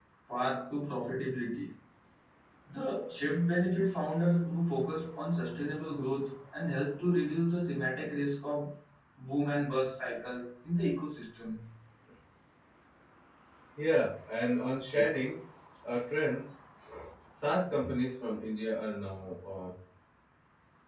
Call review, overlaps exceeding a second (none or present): none